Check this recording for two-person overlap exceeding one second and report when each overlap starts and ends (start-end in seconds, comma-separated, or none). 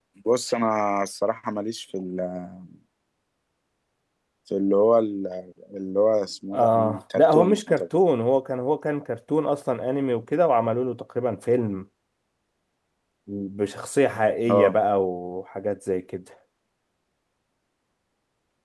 6.5-7.8